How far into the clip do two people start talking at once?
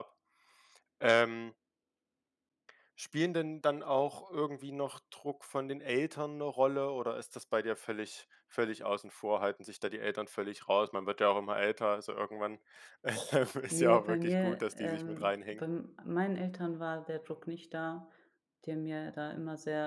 14 s

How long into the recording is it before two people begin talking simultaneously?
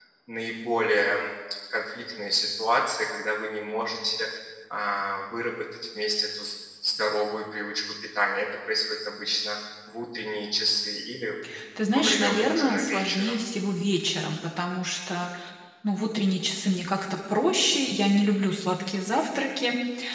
12 s

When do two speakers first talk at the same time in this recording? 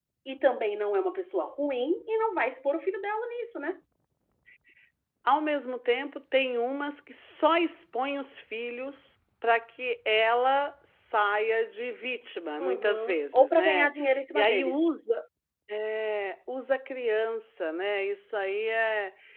13 s

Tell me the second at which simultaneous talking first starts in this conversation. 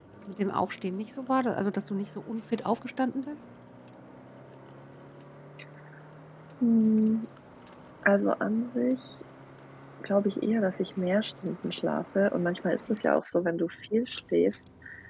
none

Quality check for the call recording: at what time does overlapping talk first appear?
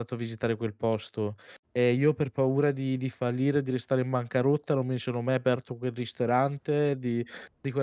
none

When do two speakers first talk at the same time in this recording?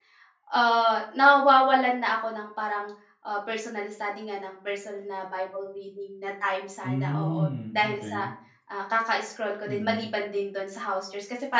7 s

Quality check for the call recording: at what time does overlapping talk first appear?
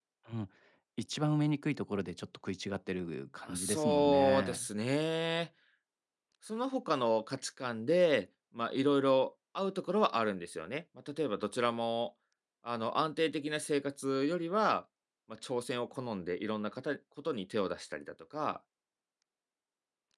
3 s

